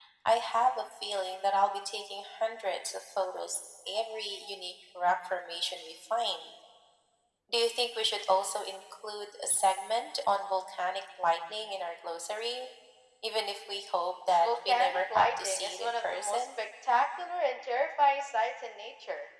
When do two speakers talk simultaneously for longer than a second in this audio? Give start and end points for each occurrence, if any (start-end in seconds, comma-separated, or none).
14.4-16.5